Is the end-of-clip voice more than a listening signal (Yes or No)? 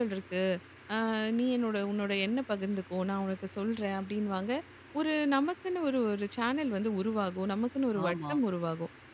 No